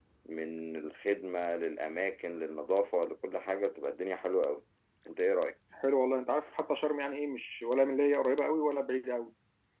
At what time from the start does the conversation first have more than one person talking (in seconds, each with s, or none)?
none